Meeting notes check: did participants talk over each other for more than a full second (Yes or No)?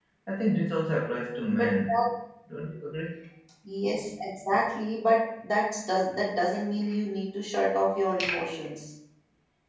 No